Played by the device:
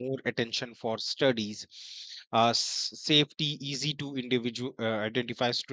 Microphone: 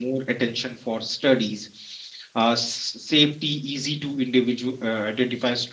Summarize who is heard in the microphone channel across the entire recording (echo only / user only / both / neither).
echo only